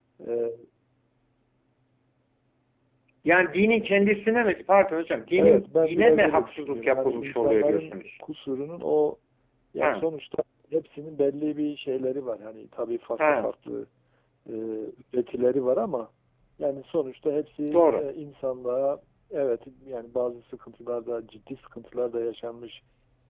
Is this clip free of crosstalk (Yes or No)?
No